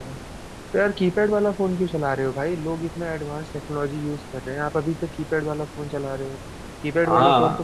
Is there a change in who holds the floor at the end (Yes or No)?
No